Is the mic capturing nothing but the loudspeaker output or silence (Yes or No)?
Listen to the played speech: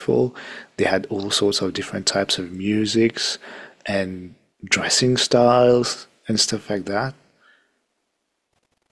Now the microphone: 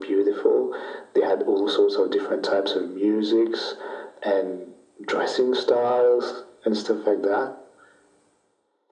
Yes